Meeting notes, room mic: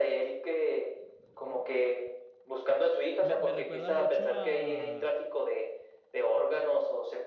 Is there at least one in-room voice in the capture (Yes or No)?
Yes